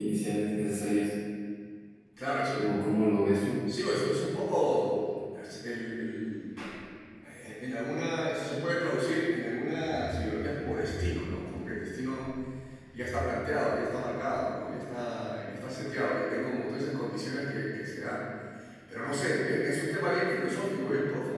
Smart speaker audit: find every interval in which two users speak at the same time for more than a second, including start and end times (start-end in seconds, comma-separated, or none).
none